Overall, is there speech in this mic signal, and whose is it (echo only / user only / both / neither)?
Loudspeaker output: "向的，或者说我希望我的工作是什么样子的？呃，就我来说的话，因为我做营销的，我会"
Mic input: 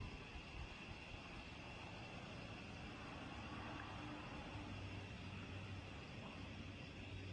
neither